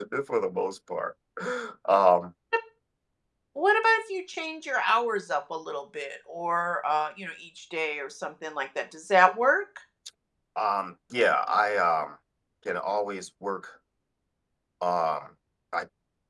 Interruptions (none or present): none